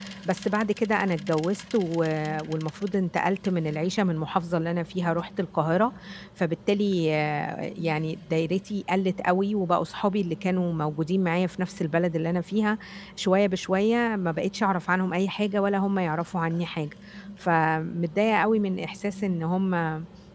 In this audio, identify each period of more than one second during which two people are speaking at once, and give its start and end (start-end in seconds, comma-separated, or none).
none